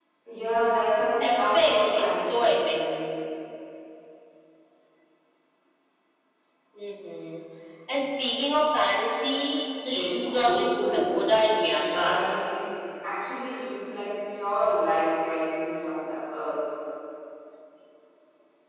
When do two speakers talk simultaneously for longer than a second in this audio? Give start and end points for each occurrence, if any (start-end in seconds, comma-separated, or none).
1.2-2.8, 9.8-11.1